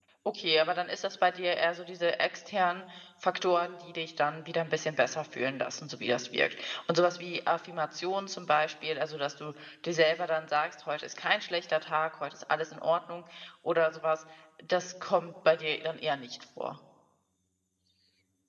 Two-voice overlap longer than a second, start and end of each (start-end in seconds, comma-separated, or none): none